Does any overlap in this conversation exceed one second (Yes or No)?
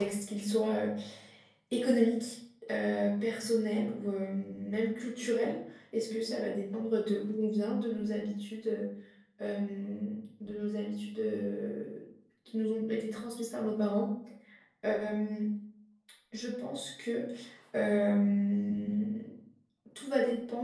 No